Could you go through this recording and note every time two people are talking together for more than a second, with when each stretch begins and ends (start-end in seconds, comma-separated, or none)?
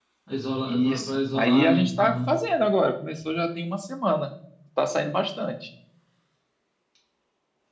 0.7-2.3